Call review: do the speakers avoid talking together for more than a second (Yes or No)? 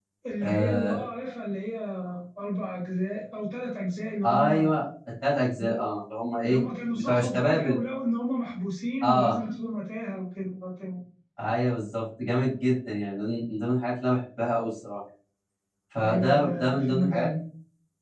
No